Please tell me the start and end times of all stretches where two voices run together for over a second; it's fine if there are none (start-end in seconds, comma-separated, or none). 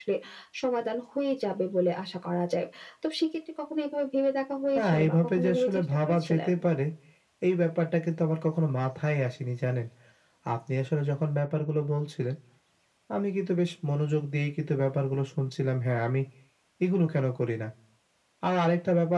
4.8-6.5